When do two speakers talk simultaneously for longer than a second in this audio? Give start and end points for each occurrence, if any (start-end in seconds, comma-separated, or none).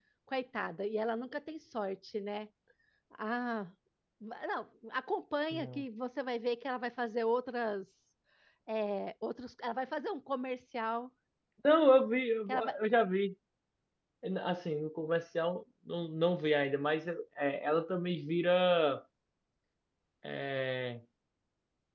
none